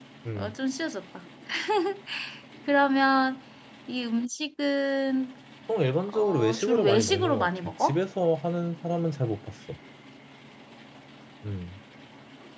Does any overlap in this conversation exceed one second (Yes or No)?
Yes